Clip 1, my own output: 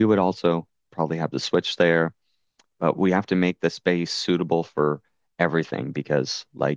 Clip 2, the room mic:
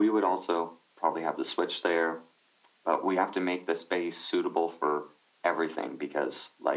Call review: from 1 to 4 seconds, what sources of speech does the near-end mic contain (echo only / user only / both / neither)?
echo only